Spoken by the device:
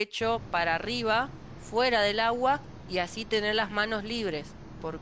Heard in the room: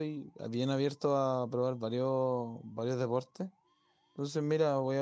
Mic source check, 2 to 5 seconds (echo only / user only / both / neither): user only